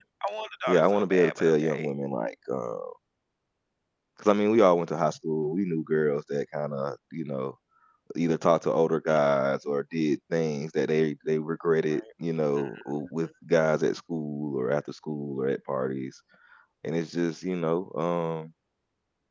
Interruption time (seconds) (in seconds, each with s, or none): 0.7 s